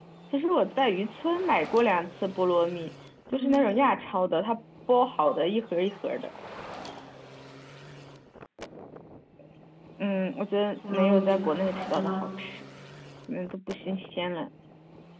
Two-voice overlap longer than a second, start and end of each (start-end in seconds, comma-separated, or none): 10.9-12.3